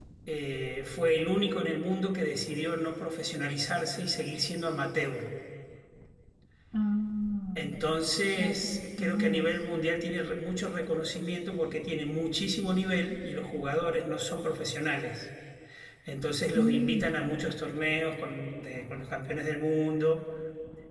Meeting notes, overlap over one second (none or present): present